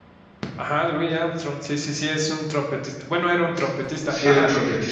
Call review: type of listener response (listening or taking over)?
taking over